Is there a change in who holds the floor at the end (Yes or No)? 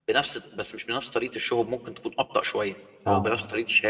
No